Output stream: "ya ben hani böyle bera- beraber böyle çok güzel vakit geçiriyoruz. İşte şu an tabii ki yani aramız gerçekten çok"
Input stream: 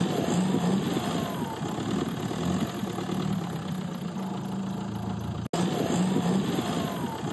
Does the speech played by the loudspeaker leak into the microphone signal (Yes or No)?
No